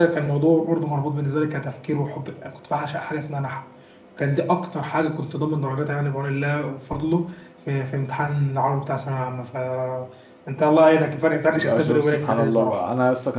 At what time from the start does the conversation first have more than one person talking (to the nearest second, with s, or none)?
12 s